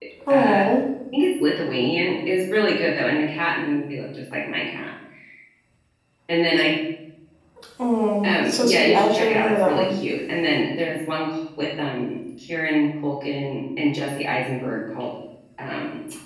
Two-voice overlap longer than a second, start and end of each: 8.2-9.9

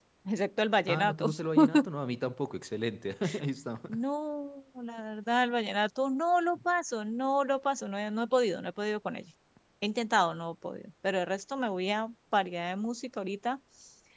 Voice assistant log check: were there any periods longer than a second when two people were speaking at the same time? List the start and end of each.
none

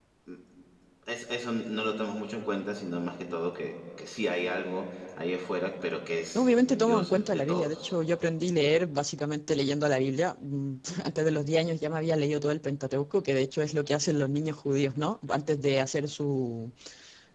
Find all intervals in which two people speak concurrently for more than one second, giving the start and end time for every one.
6.3-7.9

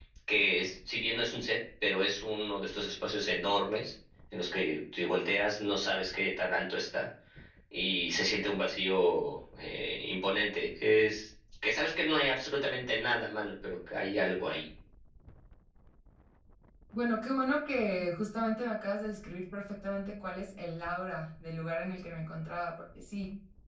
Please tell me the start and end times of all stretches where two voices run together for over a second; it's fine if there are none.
none

